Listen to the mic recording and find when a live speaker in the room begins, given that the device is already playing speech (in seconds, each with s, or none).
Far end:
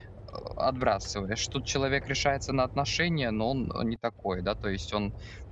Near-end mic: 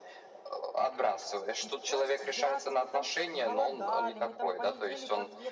1.6 s